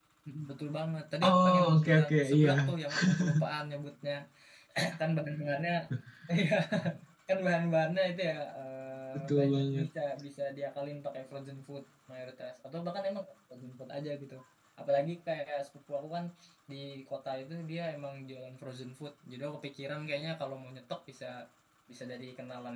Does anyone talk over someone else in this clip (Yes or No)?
Yes